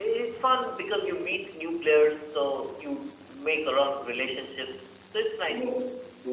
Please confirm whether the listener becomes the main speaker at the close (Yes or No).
Yes